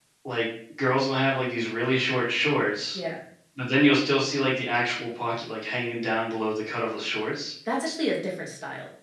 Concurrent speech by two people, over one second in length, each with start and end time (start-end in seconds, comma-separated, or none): none